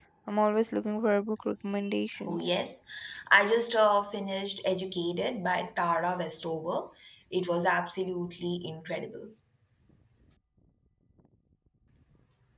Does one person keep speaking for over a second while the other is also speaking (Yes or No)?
No